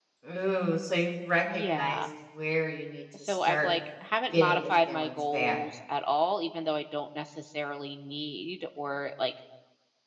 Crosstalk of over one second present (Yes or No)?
Yes